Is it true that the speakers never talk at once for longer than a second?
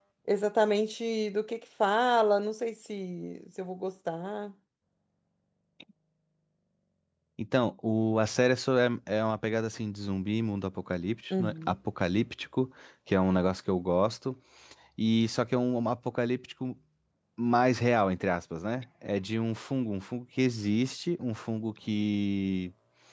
Yes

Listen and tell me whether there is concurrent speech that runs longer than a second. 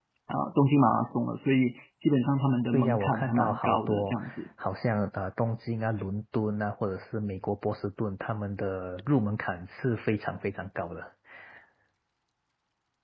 Yes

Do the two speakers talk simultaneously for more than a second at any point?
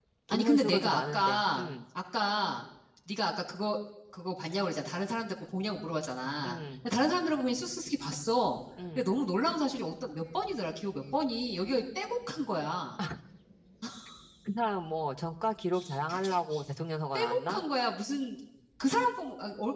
Yes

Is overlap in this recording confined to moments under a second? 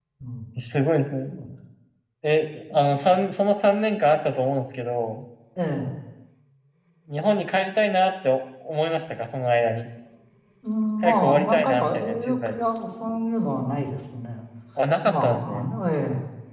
No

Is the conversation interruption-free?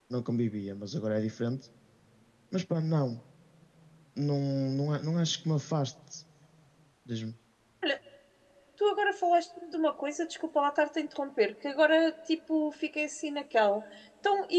Yes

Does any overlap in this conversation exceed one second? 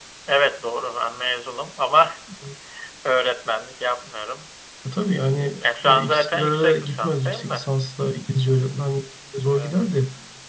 Yes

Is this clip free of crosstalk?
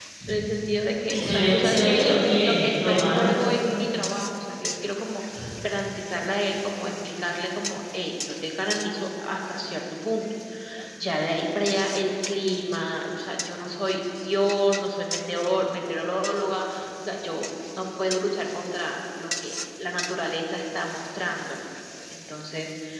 No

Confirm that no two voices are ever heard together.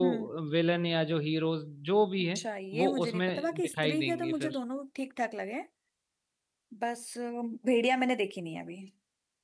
No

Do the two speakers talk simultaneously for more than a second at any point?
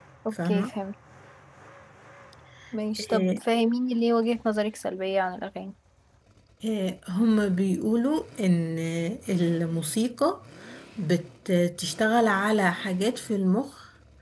No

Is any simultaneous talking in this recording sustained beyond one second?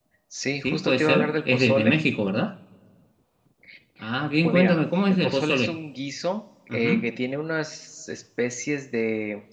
Yes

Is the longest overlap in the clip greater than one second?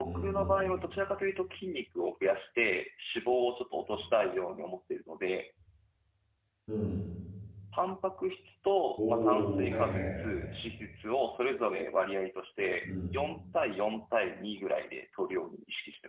Yes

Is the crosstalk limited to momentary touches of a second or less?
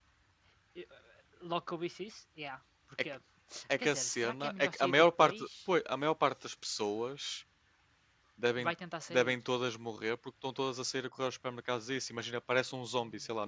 No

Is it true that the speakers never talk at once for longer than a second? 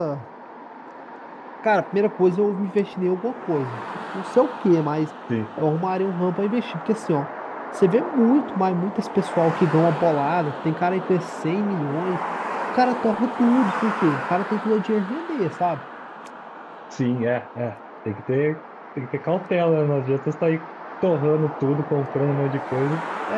Yes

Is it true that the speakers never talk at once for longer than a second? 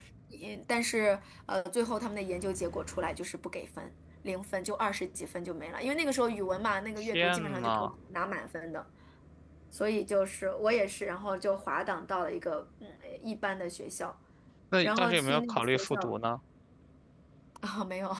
No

